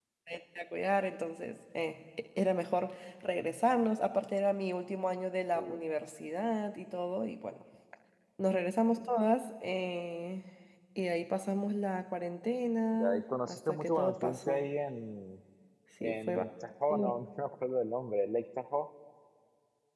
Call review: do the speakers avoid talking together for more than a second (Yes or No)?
No